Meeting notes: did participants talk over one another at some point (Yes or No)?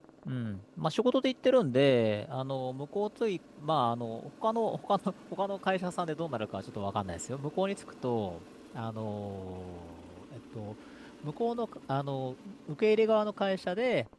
No